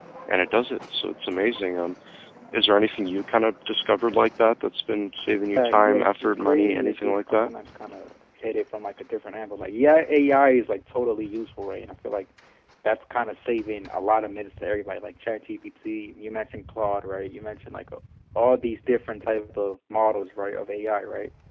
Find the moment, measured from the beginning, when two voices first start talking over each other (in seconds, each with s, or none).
5.6 s